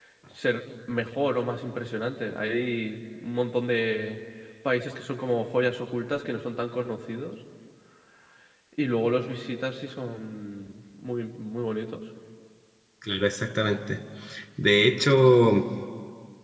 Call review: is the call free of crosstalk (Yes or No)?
Yes